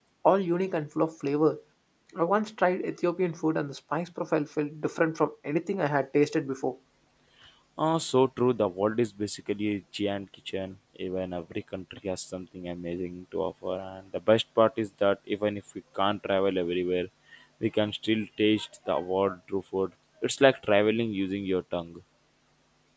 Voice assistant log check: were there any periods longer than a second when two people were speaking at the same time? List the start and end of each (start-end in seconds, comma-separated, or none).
none